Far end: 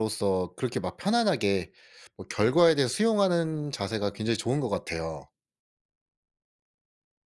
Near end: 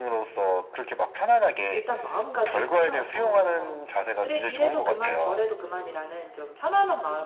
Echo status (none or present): present